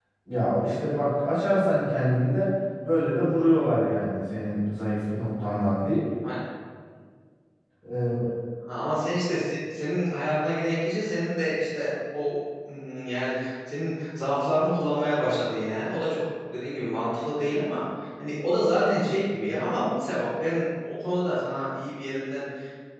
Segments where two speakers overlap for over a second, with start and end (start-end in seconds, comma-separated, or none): none